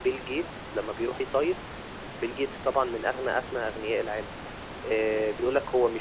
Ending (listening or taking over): listening